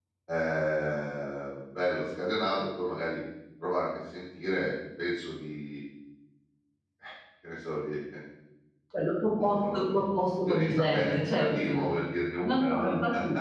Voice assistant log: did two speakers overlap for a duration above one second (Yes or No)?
Yes